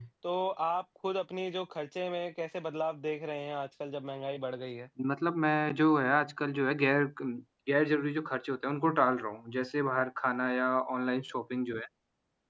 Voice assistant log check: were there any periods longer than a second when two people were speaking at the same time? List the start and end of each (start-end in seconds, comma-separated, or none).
none